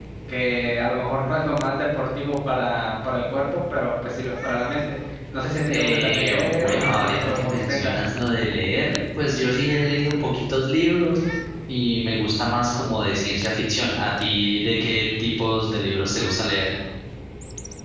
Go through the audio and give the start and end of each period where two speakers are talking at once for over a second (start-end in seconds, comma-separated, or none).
5.7-7.9